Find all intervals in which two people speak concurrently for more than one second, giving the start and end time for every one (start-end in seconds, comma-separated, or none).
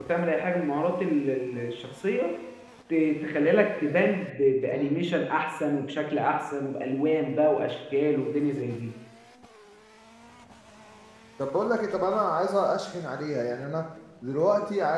none